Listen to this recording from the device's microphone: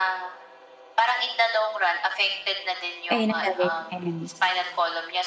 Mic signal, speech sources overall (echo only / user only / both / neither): both